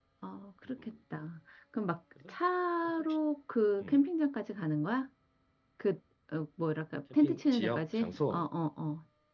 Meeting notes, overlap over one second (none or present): present